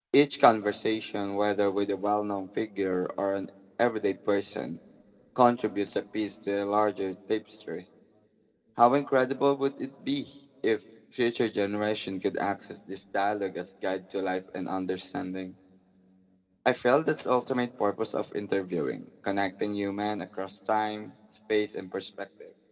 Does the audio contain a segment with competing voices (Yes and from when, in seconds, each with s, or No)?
No